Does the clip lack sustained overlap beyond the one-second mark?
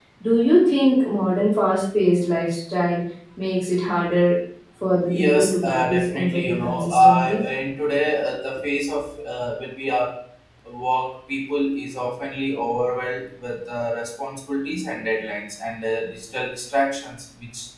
No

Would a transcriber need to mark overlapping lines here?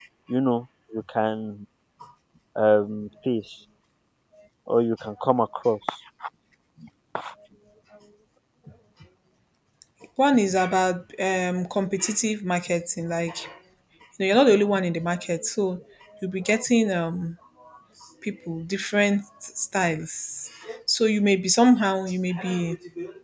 No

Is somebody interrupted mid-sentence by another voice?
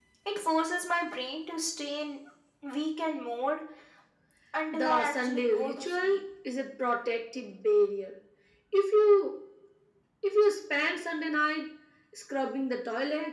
Yes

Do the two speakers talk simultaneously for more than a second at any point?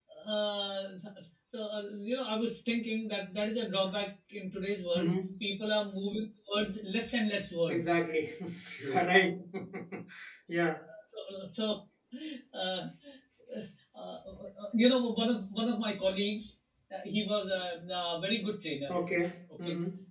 No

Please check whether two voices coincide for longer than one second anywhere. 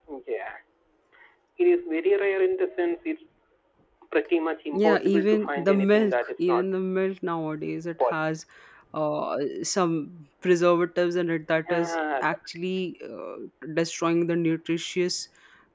Yes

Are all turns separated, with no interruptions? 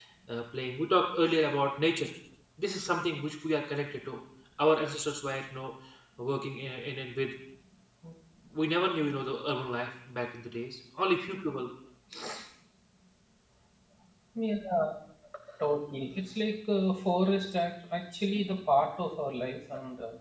Yes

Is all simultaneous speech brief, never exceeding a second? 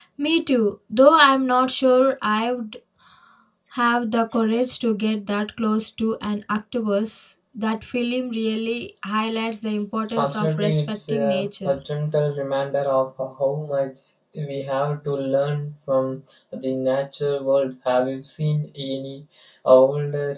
No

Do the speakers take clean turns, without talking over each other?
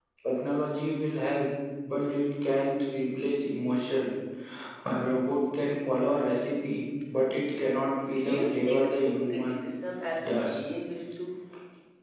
No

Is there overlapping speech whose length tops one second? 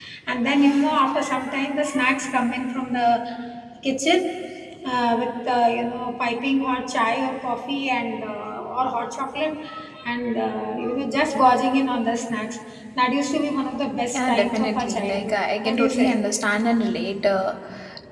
Yes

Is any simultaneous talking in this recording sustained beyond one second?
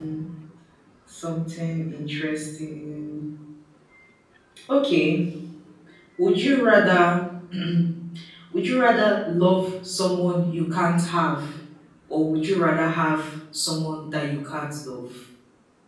No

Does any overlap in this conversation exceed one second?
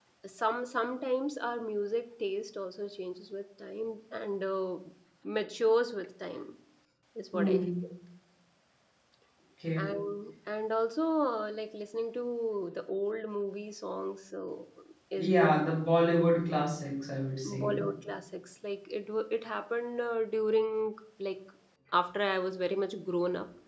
No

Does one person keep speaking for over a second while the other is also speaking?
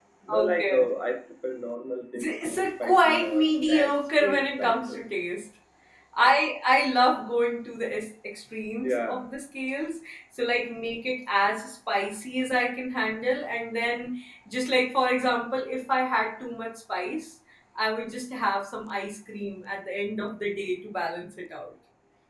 Yes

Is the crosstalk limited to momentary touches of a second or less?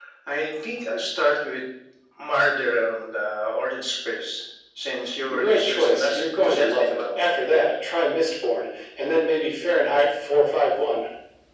No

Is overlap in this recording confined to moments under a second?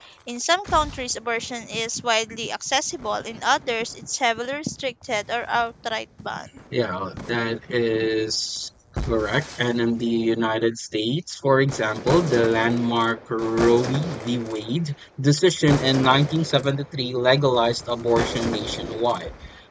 Yes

